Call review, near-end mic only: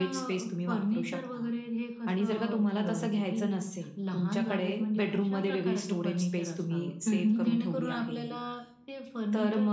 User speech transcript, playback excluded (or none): हं, हं.